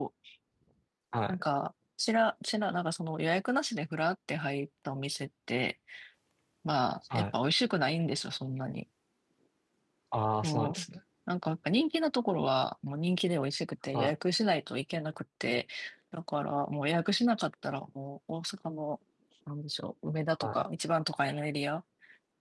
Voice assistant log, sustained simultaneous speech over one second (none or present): none